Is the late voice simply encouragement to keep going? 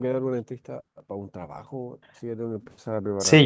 No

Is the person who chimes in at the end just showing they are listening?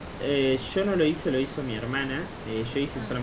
Yes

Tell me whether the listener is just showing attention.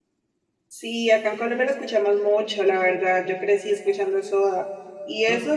Yes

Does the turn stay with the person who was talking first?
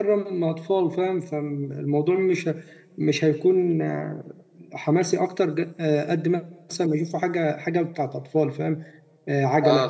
Yes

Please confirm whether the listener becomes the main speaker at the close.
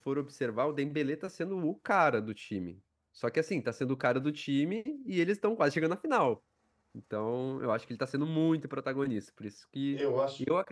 No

